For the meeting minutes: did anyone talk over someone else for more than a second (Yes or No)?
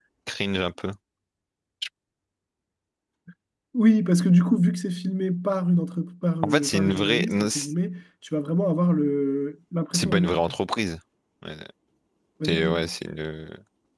Yes